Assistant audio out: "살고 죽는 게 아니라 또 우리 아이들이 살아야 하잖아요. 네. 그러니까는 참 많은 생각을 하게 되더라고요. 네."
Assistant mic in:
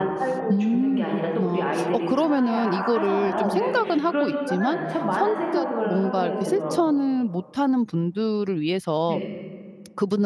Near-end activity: present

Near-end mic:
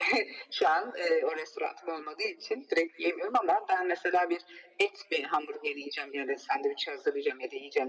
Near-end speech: none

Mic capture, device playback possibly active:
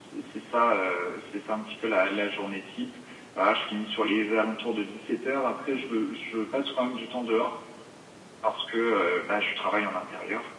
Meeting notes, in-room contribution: none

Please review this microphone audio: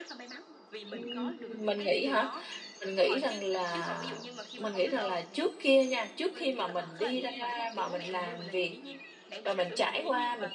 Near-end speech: present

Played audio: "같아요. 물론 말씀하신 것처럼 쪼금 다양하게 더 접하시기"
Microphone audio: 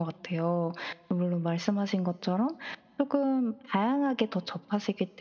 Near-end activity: none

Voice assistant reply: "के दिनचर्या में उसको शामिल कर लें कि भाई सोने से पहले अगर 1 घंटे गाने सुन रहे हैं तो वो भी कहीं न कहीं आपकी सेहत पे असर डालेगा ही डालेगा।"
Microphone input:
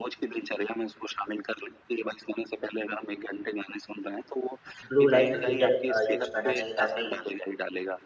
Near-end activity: present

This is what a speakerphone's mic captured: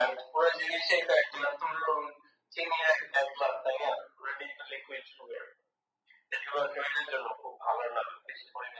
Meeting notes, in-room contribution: none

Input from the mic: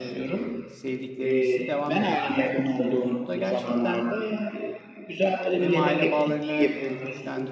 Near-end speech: present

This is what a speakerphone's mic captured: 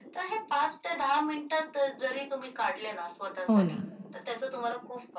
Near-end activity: present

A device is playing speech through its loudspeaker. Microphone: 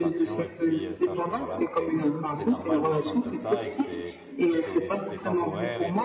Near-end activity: present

